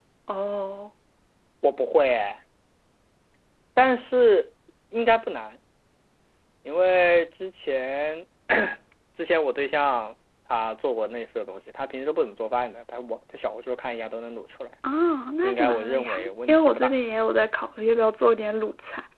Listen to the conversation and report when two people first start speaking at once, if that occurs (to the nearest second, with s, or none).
15 s